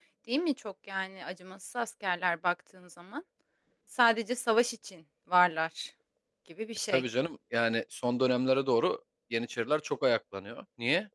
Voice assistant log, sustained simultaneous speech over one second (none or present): none